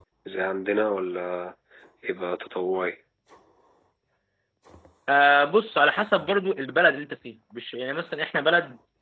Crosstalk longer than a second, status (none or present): none